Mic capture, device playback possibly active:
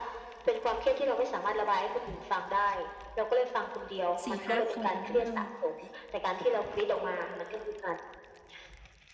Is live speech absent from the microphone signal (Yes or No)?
No